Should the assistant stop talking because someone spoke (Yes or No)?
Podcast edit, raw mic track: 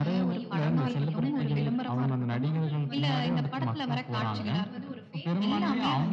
Yes